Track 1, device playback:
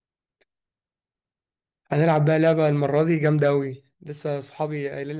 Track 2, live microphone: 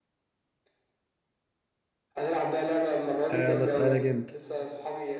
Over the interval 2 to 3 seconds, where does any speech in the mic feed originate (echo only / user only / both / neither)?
echo only